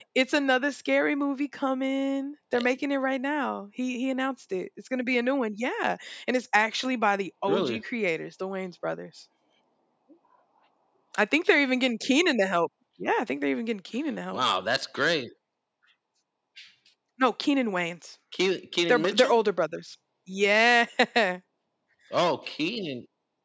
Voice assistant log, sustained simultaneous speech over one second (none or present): none